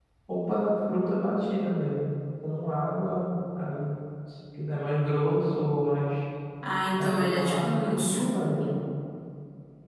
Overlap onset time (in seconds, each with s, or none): 7.0 s